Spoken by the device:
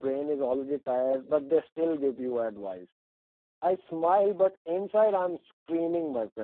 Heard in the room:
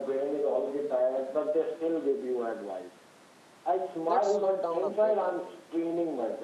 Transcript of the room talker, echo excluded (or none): Let's slow down a bit, I think.